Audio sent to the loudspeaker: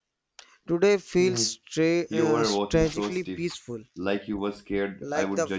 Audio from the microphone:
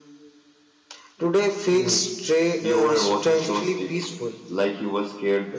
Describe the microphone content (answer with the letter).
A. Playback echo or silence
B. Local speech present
A